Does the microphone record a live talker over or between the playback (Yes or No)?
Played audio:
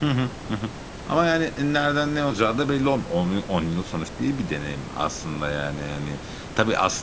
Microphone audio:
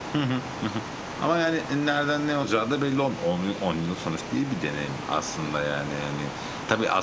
No